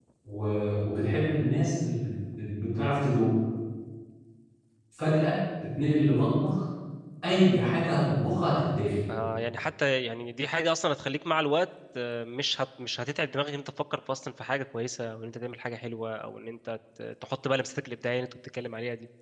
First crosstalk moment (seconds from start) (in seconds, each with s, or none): none